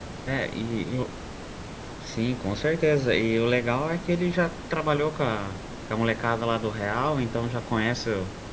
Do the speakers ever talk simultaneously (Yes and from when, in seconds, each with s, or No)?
No